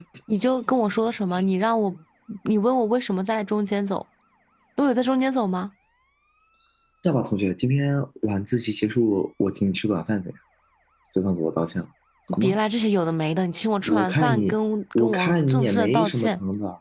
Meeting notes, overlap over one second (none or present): present